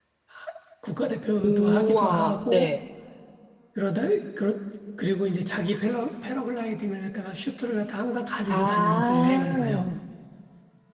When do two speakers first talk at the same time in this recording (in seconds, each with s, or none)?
1.4 s